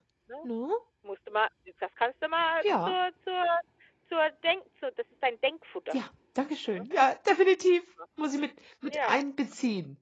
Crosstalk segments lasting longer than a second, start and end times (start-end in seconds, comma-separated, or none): none